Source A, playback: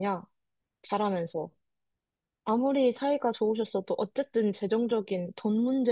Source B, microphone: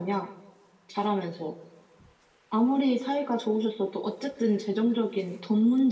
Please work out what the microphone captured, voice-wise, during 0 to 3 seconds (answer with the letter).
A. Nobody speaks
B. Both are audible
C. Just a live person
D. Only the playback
D